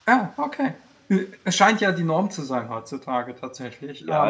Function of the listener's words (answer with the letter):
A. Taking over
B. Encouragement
A